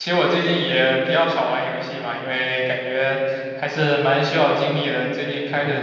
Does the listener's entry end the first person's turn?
No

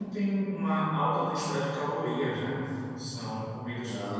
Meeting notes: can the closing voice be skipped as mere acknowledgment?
Yes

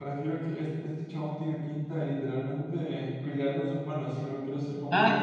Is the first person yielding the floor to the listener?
Yes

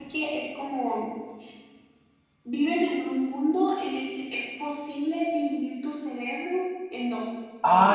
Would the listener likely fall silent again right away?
No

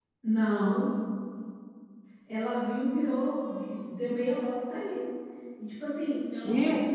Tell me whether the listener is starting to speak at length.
No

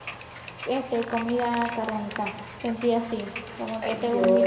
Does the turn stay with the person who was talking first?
Yes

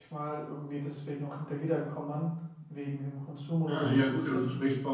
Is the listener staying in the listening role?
No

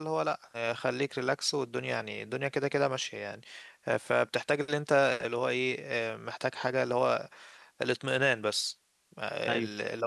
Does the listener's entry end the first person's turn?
No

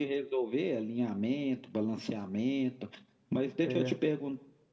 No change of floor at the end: Yes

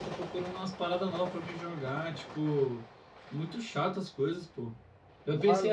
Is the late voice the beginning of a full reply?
No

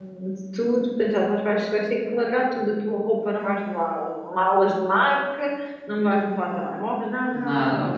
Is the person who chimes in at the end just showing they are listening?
Yes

